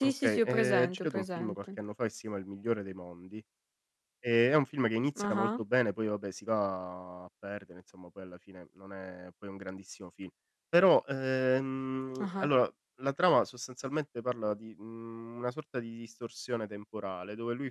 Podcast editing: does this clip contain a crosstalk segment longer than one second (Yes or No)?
Yes